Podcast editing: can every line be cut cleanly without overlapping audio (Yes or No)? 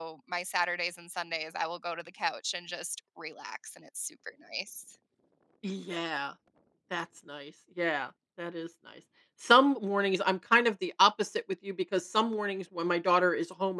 Yes